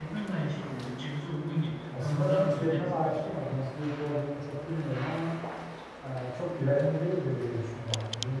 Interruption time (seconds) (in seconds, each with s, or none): 1.9 s